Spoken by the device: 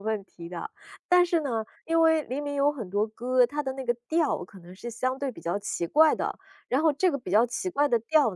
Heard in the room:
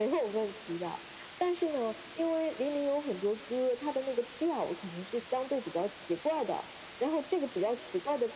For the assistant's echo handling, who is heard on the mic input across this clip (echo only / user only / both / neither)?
echo only